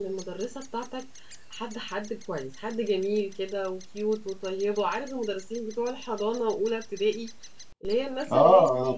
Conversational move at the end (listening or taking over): taking over